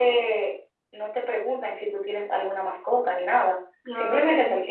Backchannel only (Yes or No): Yes